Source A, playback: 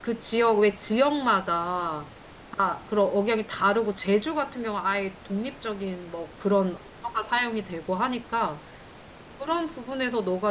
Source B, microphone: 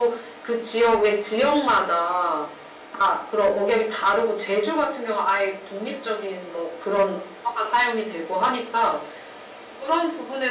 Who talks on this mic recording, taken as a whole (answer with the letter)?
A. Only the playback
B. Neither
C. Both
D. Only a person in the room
A